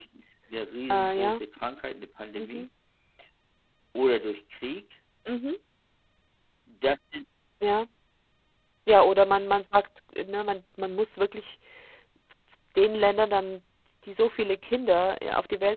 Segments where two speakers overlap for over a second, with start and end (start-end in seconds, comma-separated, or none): none